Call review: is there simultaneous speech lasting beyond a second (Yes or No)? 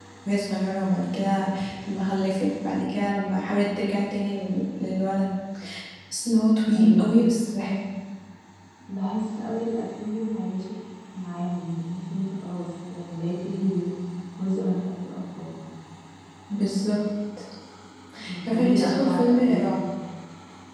Yes